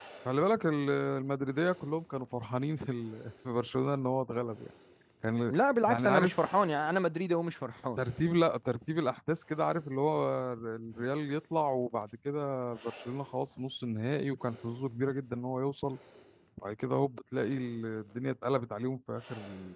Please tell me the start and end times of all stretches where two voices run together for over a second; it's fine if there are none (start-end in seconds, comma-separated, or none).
none